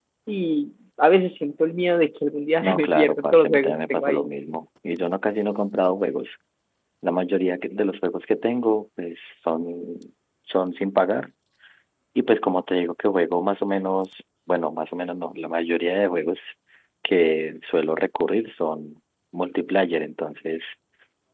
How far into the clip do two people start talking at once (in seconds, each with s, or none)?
2.6 s